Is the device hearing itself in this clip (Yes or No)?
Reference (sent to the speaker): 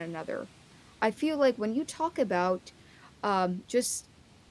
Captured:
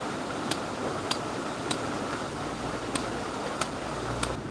No